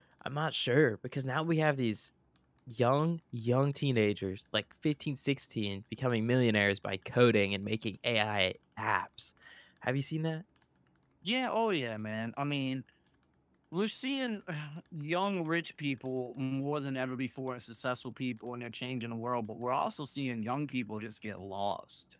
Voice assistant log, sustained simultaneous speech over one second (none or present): none